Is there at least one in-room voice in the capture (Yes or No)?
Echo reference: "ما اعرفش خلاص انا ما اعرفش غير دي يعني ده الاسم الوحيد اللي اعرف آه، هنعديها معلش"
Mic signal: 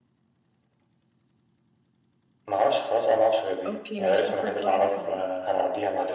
Yes